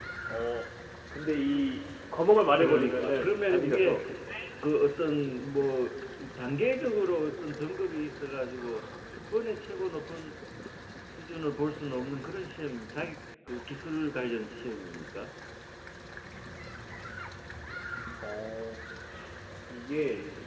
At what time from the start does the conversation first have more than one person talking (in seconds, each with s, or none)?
2.6 s